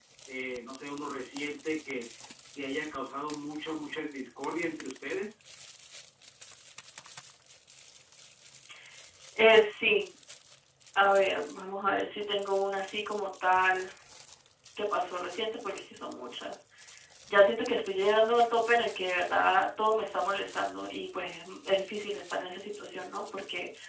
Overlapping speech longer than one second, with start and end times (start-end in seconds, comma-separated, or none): none